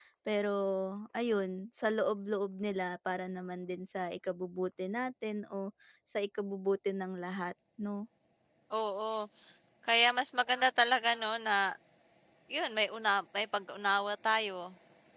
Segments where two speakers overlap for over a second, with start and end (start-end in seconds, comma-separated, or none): none